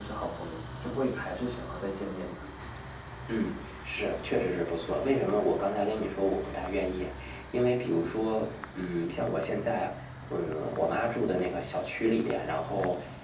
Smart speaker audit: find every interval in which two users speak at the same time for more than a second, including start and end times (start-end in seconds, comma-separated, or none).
none